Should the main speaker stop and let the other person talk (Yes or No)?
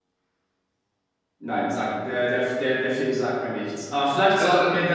No